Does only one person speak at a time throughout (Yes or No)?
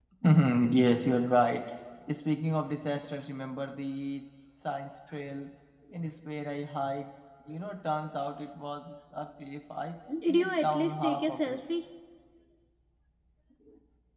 No